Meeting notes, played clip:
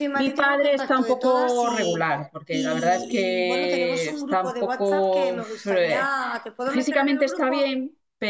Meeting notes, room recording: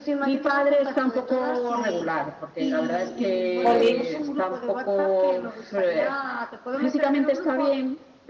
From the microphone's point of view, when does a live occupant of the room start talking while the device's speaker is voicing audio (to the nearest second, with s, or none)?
4 s